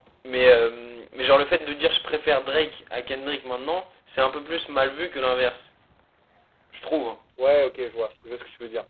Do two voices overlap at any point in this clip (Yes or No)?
No